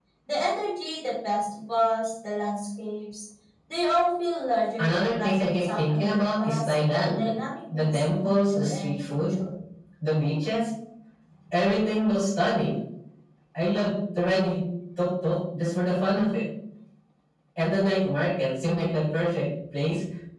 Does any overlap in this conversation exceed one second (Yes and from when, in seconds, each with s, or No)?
Yes, from 4.8 s